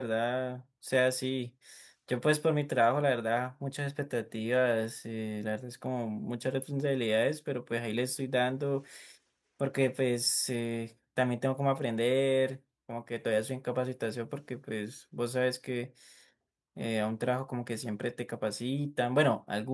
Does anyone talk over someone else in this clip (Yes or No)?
No